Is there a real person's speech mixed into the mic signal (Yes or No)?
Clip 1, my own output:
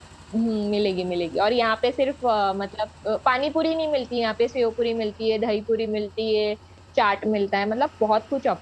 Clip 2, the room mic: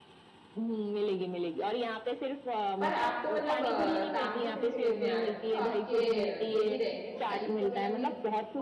Yes